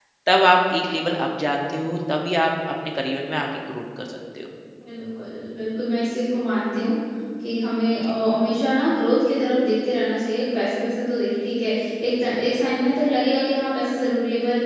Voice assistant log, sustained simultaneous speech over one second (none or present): none